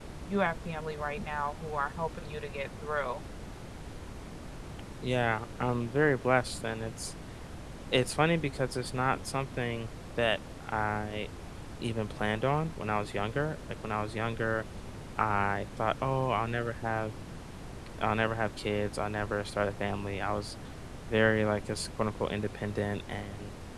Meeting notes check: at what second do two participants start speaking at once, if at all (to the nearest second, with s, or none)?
none